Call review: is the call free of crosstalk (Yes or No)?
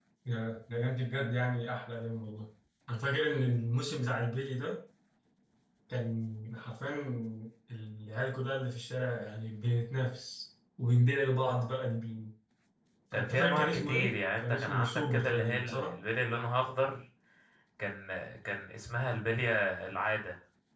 No